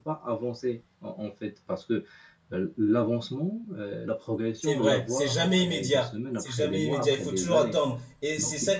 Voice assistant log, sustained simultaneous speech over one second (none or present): present